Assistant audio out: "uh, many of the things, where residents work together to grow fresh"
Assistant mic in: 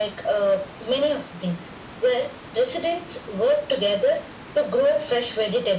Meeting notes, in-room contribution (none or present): none